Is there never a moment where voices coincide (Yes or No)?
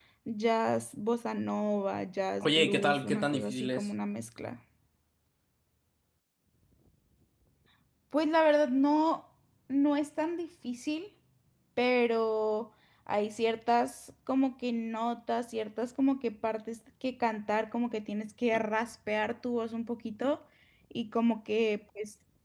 No